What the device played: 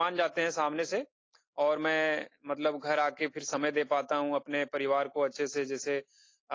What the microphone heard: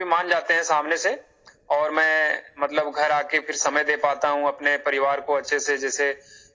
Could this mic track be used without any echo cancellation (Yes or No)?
No